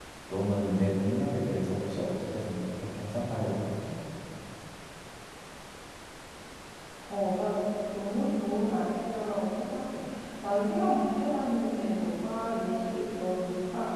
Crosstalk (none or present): none